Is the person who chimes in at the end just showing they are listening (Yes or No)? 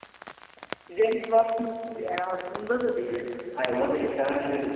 No